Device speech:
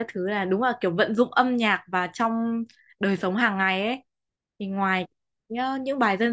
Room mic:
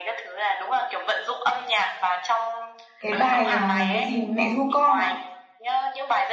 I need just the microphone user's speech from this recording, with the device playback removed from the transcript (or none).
cái bài ờ, cái gì mẹ ru con à